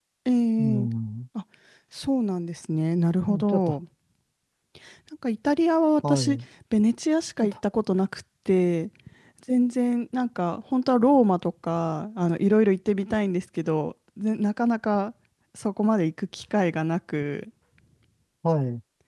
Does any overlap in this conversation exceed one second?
No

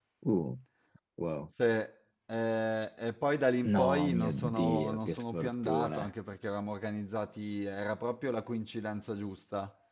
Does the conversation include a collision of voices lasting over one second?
Yes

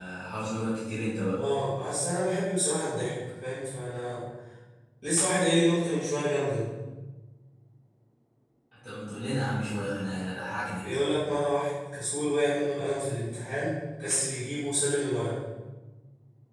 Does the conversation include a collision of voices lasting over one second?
No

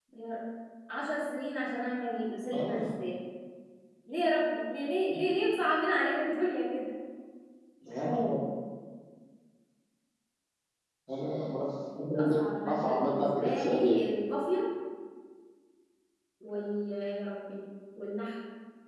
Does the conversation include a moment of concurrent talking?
Yes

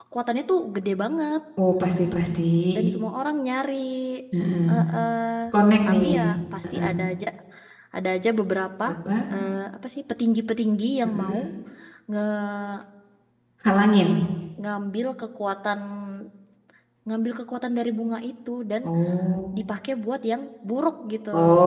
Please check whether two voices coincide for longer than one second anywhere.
No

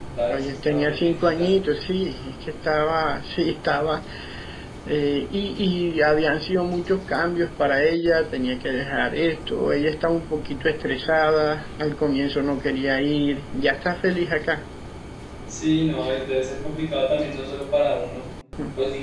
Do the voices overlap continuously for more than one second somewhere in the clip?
Yes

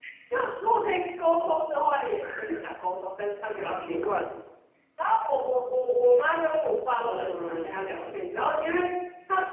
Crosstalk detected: Yes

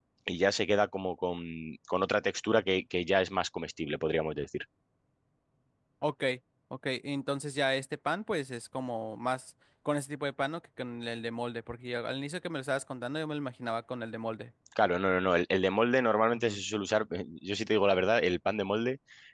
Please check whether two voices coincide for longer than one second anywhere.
No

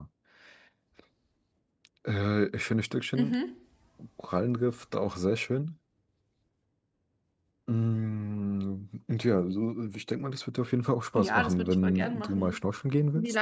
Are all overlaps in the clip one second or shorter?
No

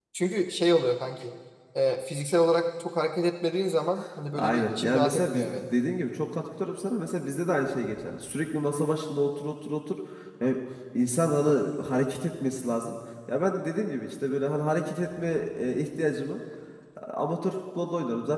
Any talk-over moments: Yes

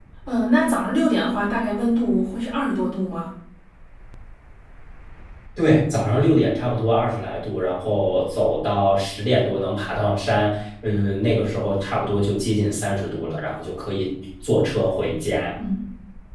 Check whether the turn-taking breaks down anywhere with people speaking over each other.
No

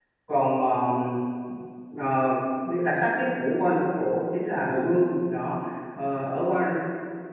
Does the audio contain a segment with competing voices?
No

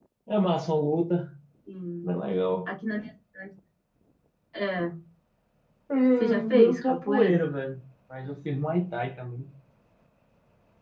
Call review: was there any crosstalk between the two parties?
Yes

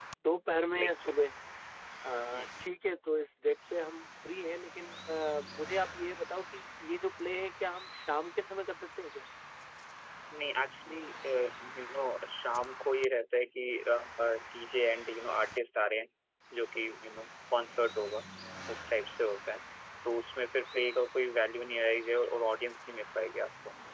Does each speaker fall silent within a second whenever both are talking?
Yes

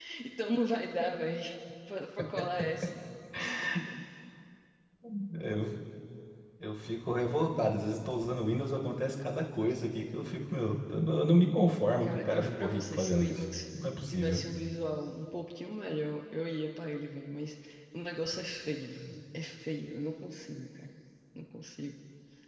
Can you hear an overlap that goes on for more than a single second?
Yes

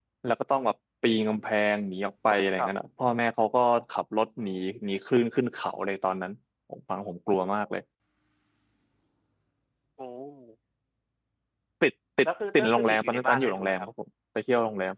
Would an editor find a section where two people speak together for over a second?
Yes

